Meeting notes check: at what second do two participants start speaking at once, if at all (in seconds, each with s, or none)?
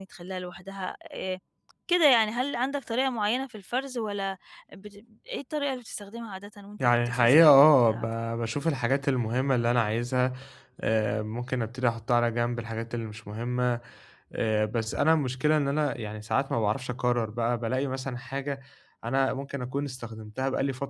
6.8 s